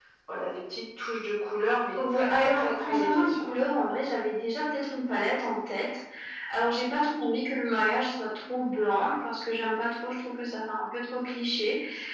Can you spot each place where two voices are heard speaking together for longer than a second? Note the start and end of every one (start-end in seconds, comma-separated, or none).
2.1-3.5